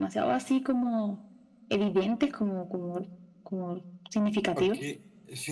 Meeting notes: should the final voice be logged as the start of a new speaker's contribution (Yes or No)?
Yes